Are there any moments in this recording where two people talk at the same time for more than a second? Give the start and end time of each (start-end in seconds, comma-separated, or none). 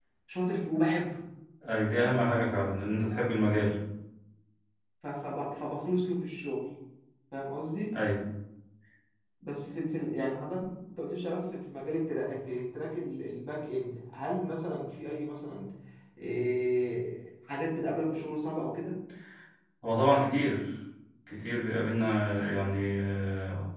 none